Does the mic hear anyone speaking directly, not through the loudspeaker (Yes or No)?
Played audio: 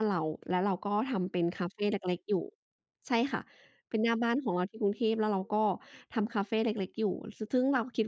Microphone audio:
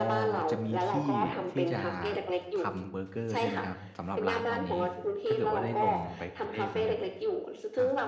Yes